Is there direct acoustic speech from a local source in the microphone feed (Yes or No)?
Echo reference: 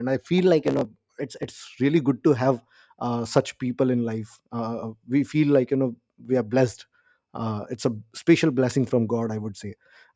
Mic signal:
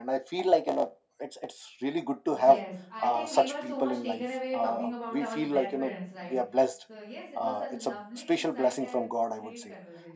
Yes